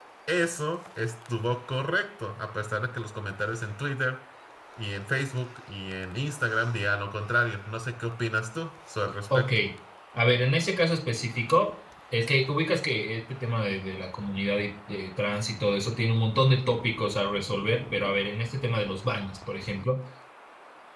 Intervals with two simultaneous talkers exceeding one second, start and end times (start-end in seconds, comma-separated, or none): none